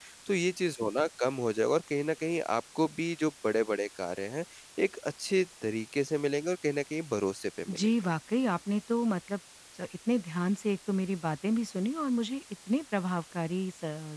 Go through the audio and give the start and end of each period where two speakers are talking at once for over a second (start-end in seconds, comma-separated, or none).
none